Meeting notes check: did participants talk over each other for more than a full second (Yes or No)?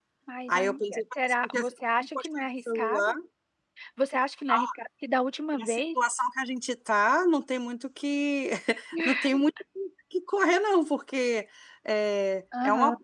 Yes